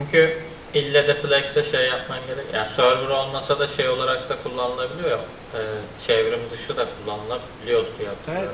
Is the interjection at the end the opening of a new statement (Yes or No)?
Yes